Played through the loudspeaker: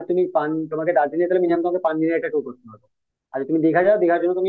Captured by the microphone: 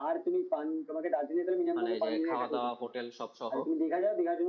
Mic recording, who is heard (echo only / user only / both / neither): both